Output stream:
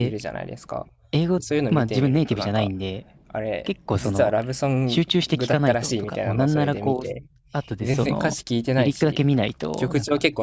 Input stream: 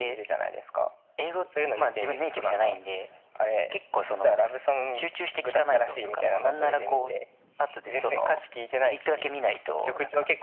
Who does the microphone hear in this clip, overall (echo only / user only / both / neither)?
echo only